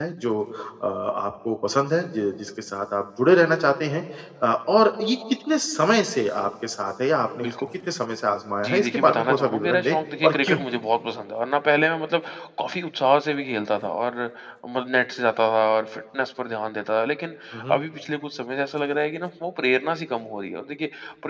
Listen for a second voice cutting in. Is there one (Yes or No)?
Yes